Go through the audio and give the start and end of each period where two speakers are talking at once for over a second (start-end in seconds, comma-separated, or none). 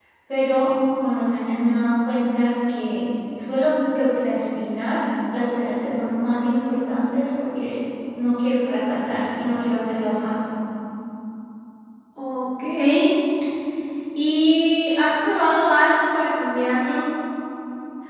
none